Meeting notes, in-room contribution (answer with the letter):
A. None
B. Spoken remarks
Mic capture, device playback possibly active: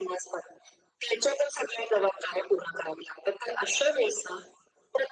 A